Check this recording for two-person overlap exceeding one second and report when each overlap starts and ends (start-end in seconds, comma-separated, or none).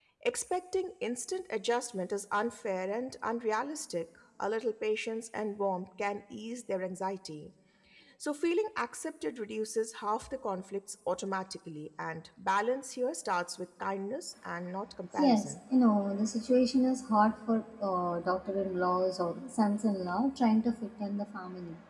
none